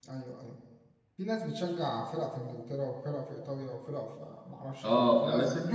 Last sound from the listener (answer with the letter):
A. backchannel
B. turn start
B